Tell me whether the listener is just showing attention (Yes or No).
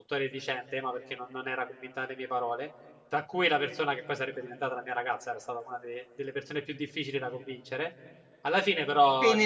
No